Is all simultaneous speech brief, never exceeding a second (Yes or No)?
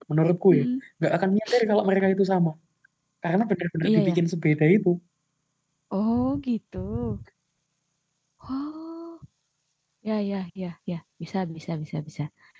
Yes